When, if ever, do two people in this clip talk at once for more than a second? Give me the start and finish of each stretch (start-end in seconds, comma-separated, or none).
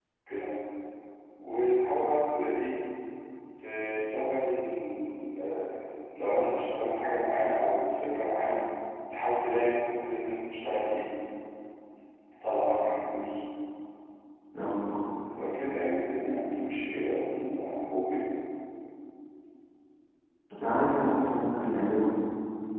none